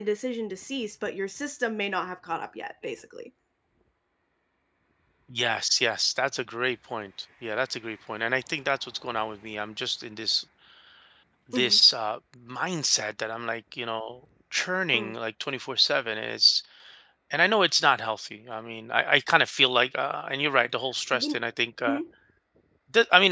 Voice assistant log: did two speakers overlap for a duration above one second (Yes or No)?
No